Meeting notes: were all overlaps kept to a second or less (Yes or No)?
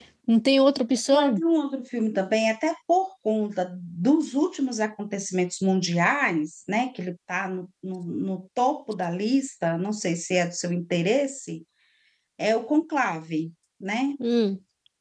Yes